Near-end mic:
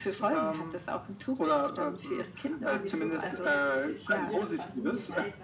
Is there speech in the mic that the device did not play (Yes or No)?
Yes